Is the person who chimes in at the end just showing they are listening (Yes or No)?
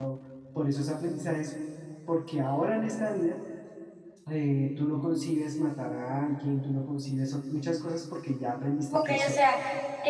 No